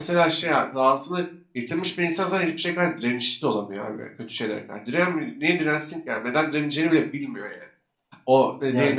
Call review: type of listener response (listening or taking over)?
listening